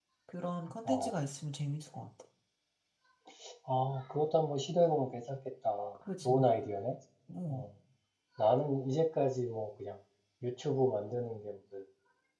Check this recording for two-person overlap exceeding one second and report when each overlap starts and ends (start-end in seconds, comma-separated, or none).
none